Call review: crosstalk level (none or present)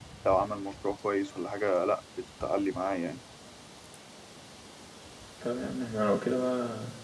none